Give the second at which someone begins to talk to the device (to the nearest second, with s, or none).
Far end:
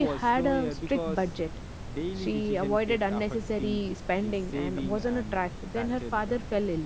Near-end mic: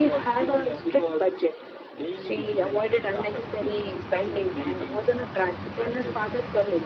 none